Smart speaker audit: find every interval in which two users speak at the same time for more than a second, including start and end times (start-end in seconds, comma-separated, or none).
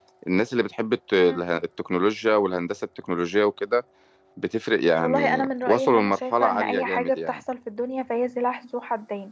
5.0-7.4